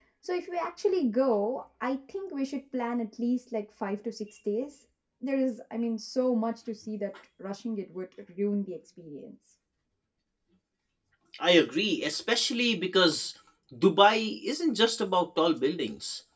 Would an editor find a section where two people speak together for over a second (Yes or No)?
No